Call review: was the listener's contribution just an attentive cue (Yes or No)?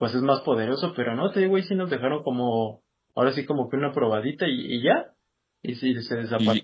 No